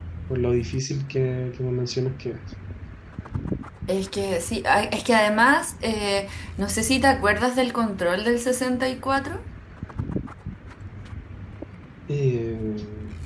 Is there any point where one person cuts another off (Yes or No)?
No